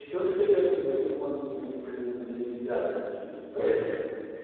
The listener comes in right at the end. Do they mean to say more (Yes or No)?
Yes